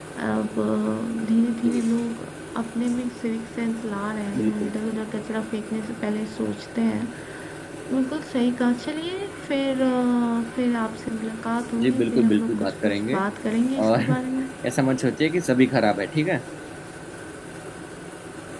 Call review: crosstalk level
present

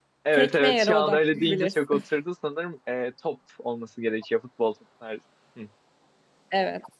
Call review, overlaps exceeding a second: present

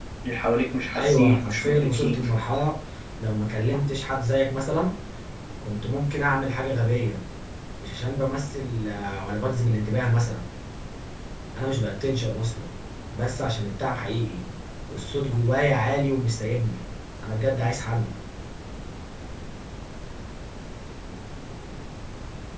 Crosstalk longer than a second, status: present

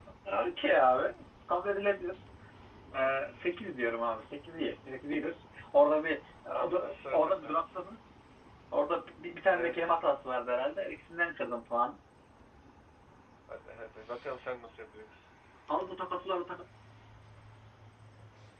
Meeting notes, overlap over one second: none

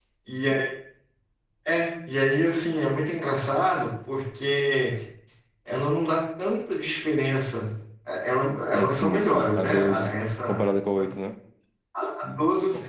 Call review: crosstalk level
present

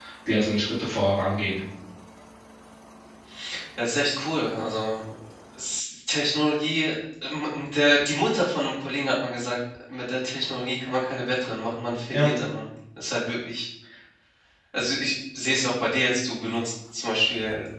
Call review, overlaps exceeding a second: none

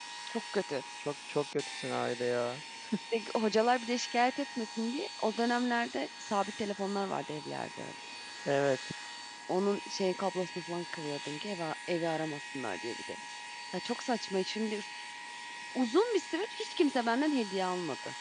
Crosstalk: none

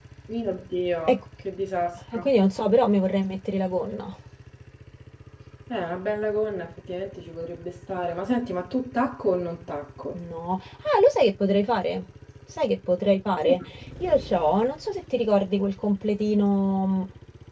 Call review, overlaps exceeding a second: none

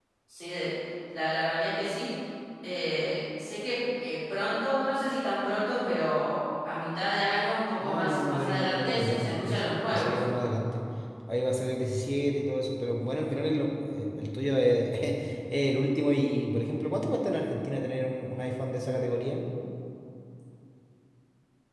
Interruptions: present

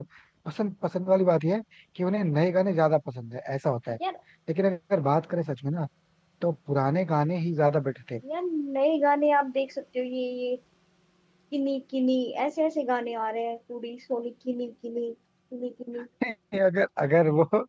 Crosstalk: none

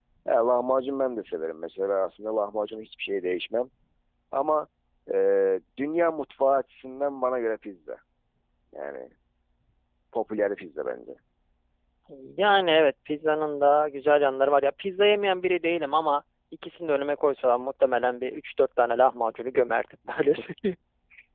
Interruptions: none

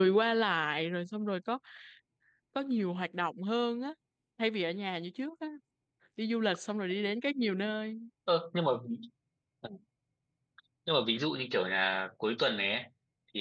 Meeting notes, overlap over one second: none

